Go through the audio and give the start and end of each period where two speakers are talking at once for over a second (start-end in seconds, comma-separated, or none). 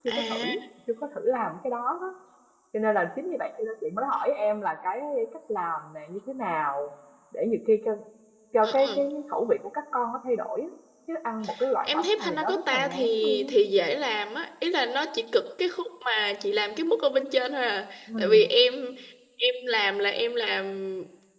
11.8-13.5